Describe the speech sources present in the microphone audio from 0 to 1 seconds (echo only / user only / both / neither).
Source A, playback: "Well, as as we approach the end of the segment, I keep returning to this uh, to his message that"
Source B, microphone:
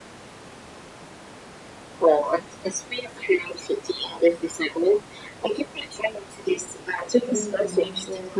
neither